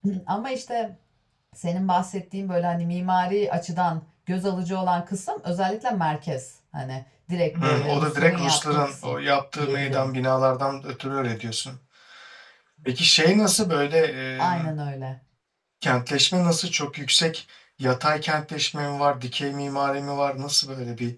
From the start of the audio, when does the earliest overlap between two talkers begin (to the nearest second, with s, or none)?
8 s